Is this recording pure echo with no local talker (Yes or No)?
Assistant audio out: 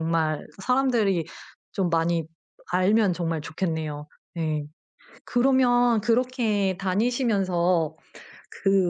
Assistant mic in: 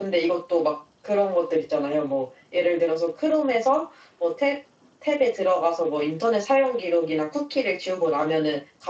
No